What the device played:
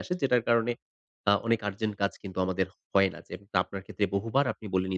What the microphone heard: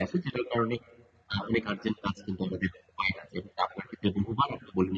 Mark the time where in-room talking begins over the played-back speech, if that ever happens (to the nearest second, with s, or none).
none